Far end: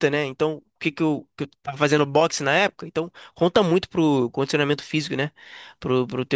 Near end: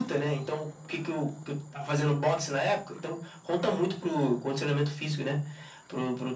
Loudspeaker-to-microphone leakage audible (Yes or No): Yes